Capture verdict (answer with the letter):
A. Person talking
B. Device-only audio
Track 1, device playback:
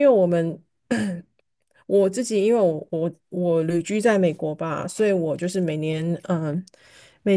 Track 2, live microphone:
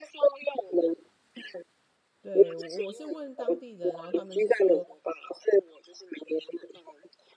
A